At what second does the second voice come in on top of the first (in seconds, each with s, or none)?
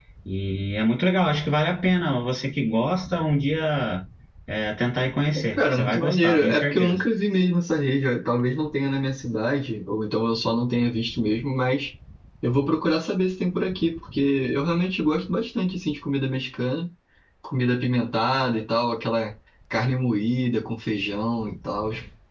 5.6 s